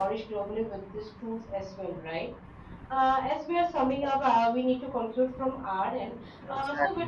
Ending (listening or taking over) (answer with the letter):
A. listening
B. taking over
A